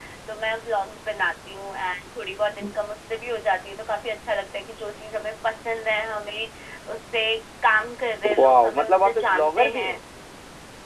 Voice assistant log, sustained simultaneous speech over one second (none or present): present